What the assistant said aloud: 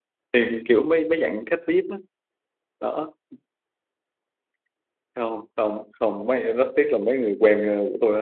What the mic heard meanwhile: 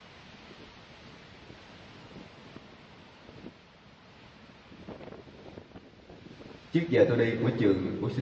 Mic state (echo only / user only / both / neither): user only